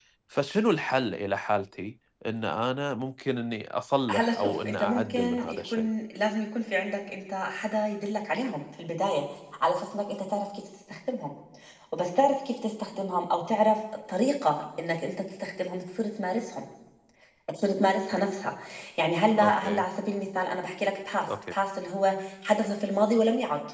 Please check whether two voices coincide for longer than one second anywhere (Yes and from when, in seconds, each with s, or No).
Yes, from 4.1 s